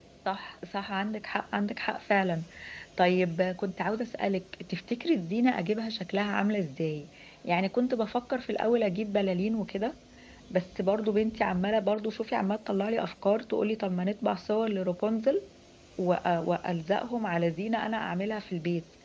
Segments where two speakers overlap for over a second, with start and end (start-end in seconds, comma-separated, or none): none